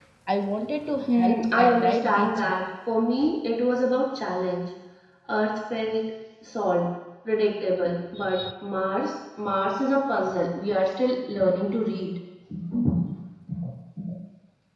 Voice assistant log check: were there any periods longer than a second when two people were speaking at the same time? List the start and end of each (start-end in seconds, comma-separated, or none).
1.1-2.5